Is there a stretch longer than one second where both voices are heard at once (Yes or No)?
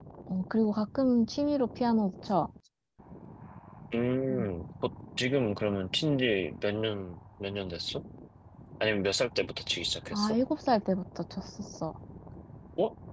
No